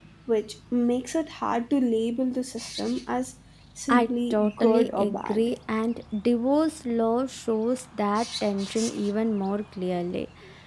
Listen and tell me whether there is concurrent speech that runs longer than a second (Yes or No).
Yes